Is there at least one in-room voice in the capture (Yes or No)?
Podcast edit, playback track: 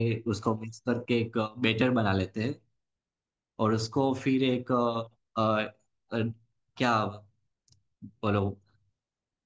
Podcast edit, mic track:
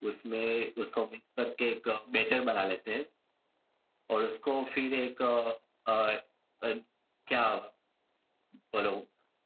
No